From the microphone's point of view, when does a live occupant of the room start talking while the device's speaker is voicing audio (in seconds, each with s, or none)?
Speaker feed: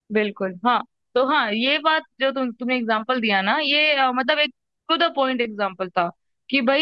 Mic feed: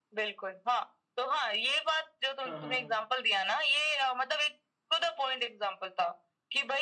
2.4 s